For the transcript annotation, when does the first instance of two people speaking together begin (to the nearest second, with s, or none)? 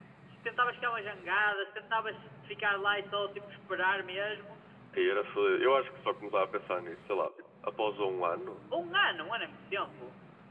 none